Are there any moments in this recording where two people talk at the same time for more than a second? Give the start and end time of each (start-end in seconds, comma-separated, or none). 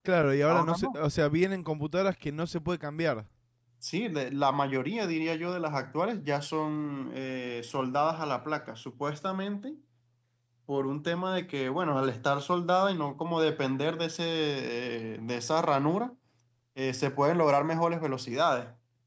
none